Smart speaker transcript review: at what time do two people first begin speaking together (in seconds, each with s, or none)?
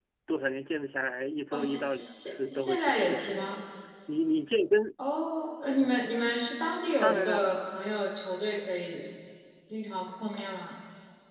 1.5 s